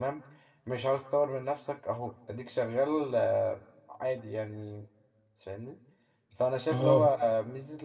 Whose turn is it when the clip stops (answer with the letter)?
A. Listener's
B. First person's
B